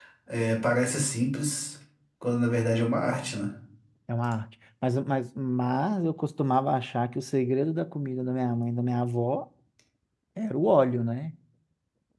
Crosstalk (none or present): none